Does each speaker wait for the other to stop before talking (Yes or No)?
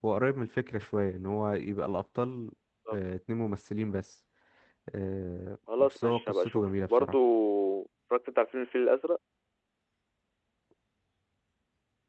No